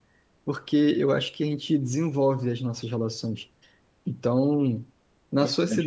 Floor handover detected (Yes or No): No